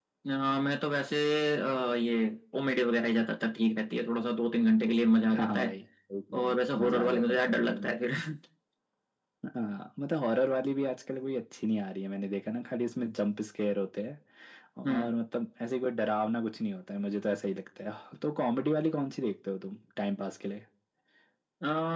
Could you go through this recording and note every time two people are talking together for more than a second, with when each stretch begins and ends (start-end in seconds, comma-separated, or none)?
6.3-7.9